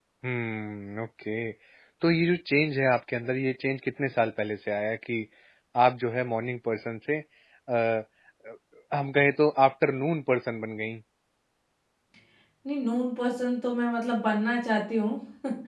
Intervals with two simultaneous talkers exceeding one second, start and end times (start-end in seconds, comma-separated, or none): none